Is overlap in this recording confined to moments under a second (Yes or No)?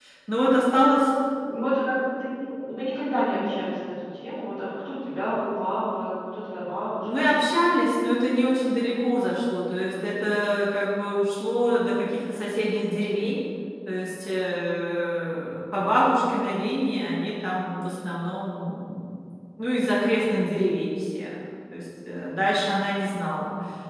Yes